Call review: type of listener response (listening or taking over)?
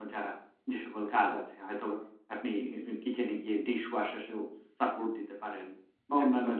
listening